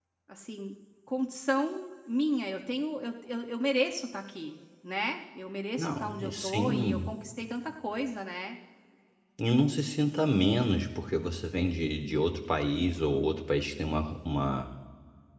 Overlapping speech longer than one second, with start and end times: 5.8-7.1

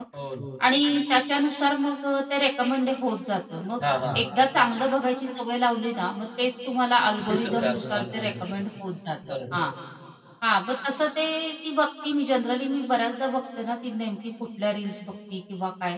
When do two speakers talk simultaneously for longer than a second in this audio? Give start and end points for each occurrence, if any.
7.3-8.6

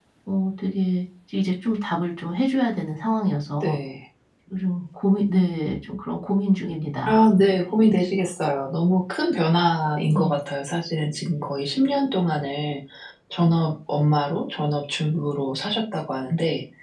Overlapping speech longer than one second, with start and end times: none

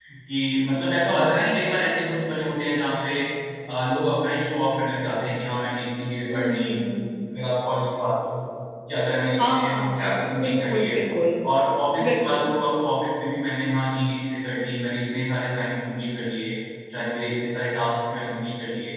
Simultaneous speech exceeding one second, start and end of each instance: 9.4-10.9

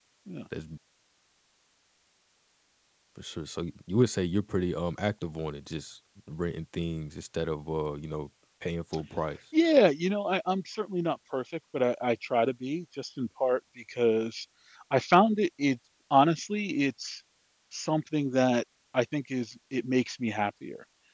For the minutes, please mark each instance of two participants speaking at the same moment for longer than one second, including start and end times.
none

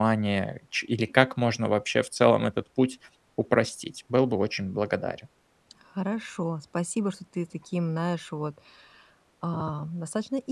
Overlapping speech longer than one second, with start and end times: none

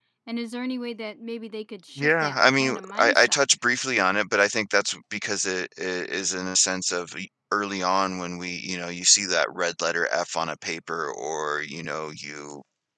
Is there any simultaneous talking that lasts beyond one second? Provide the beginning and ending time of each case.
2.0-3.4

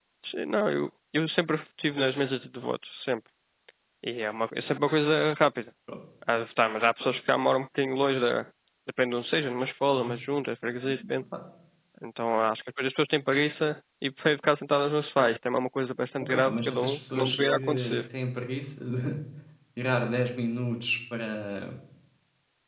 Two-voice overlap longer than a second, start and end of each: 16.2-18.0

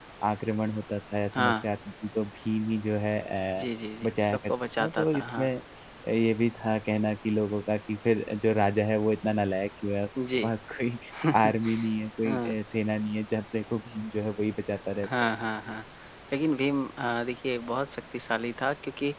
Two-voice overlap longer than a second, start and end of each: 4.0-5.5

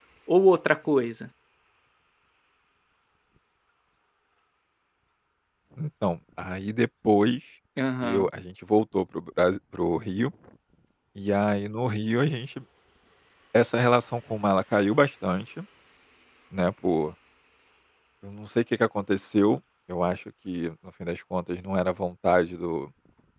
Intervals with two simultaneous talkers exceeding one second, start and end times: none

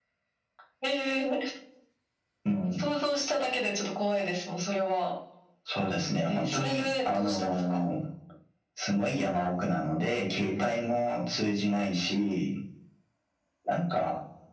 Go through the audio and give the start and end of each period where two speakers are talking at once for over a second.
6.3-7.8

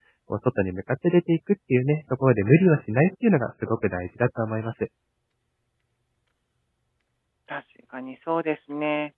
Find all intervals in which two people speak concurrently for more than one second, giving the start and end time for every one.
none

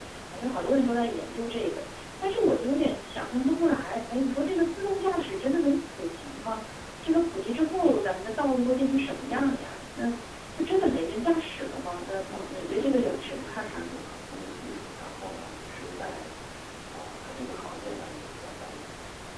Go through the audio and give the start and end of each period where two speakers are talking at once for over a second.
12.3-14.0

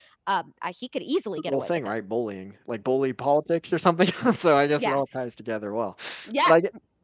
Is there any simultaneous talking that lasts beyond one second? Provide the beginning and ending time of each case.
none

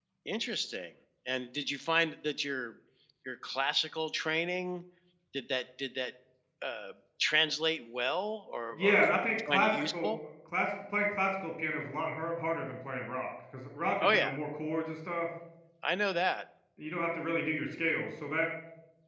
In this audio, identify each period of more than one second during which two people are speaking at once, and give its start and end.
8.7-10.1

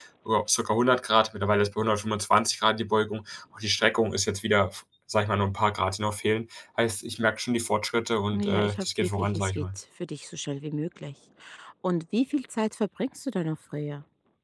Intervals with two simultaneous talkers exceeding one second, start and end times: 8.3-9.7

